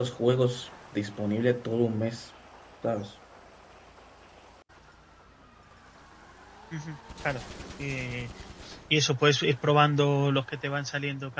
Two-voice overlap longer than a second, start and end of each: none

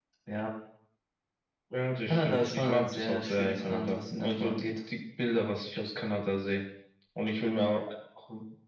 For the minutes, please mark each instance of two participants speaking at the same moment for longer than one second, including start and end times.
2.1-4.7

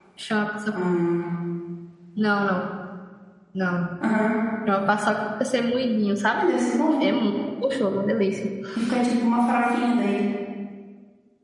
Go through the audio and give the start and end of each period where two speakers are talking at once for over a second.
none

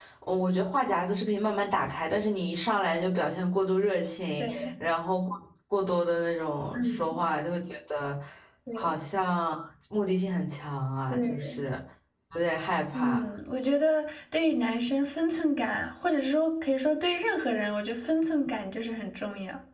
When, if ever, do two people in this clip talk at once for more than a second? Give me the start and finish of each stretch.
none

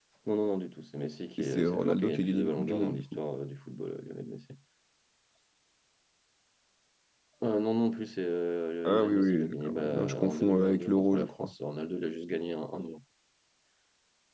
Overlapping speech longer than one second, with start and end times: 1.4-3.0, 8.8-11.5

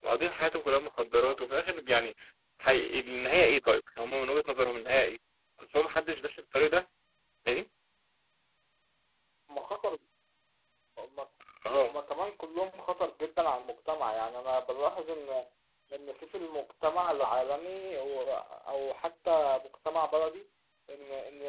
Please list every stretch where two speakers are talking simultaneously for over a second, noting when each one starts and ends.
none

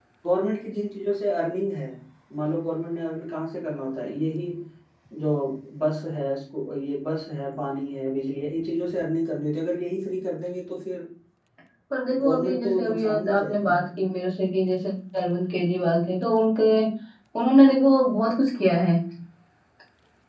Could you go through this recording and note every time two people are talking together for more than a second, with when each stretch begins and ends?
12.2-13.8

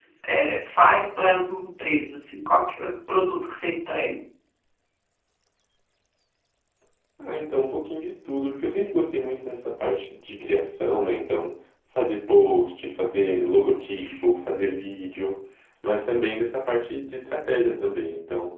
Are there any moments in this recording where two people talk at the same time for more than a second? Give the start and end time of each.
none

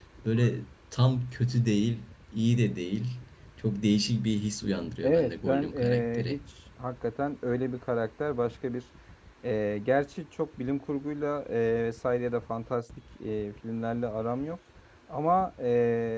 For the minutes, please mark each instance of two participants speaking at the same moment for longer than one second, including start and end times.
5.0-6.4

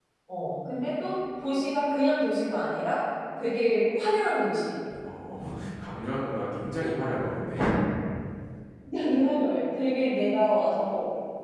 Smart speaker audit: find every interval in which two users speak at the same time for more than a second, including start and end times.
none

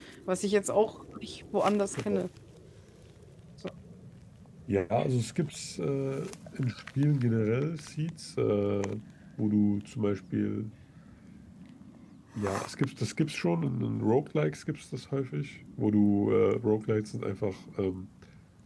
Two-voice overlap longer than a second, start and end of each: none

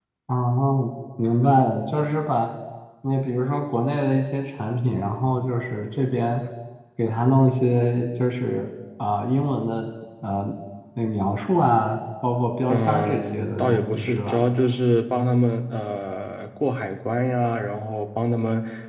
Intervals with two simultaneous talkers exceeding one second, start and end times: 12.7-14.4

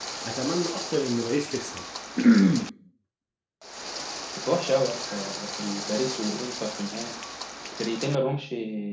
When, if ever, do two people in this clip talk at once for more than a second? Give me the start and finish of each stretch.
none

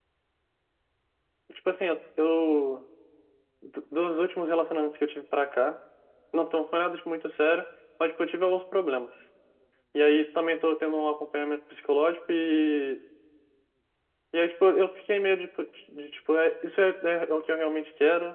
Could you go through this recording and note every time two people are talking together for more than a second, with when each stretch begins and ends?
none

